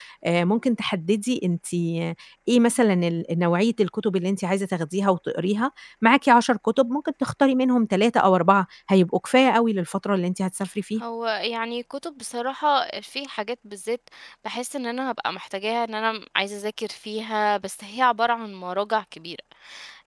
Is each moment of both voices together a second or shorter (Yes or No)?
Yes